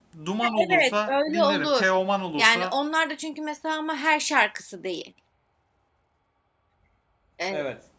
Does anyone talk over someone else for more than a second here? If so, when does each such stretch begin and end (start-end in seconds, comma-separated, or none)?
0.7-1.9